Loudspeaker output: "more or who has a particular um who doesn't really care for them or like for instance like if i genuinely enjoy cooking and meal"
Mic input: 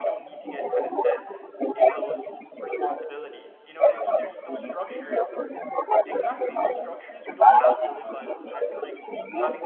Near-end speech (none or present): present